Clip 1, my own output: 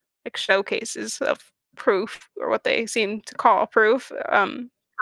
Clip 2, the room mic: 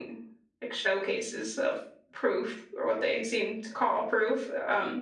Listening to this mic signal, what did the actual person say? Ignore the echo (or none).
none